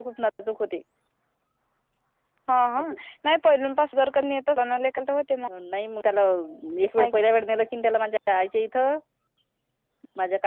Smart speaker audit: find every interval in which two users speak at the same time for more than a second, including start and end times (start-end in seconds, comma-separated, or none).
none